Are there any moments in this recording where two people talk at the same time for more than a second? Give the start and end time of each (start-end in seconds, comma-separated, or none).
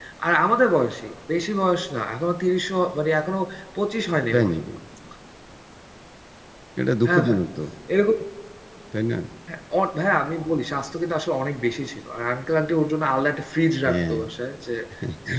none